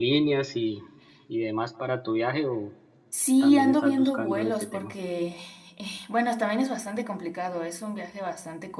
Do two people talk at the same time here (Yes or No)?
Yes